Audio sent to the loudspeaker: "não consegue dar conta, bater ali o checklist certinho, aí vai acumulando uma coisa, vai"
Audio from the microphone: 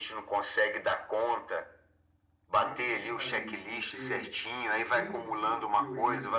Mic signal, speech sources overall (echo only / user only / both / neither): both